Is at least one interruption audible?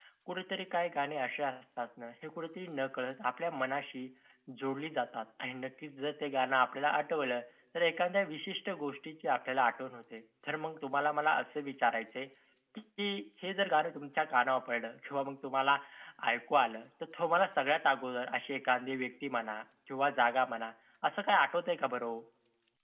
No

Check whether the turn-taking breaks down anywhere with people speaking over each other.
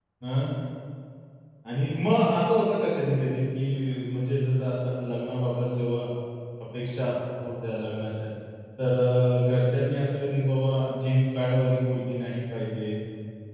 No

